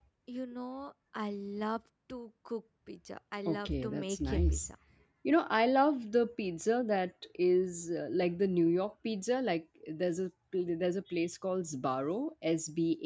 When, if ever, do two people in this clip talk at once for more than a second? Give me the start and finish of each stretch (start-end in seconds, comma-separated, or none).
3.4-4.7